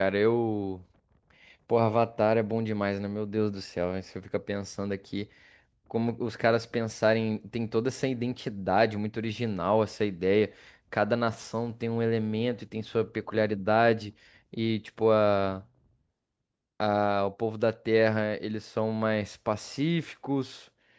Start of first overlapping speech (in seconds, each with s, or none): none